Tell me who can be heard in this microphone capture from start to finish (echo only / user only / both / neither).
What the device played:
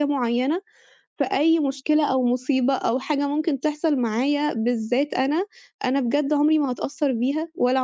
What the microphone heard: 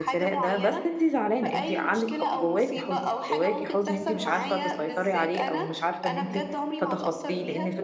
both